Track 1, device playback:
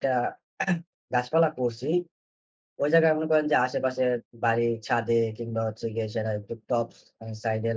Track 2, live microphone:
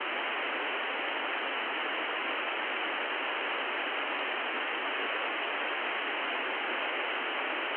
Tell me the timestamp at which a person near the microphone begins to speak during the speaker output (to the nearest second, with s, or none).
none